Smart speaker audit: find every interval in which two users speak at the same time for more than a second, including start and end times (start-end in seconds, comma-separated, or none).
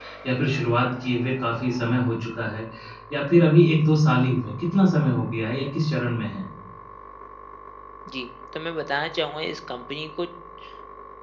none